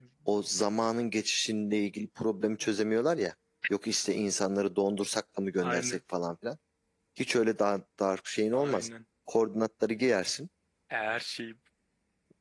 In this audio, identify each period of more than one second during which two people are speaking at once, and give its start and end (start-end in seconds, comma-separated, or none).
none